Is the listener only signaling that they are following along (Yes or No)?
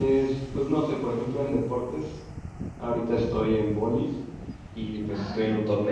Yes